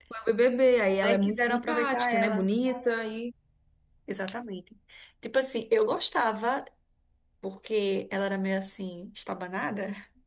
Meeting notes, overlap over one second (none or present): present